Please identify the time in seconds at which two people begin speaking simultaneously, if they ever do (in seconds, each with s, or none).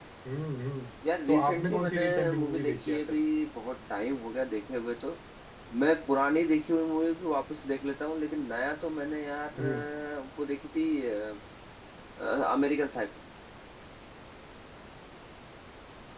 1.3 s